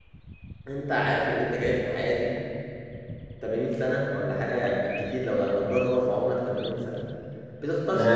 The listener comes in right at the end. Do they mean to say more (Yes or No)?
Yes